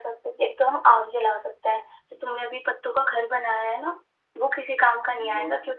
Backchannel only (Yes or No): Yes